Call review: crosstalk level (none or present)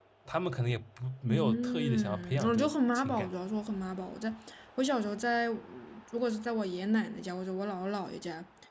present